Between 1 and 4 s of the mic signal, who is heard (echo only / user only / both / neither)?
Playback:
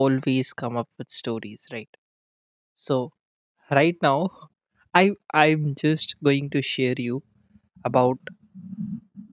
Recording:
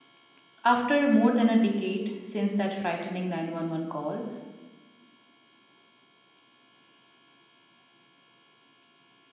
user only